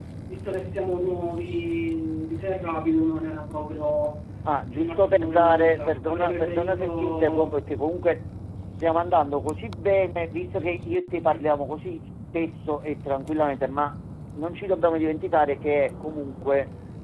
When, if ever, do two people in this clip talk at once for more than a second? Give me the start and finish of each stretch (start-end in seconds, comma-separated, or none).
4.7-7.5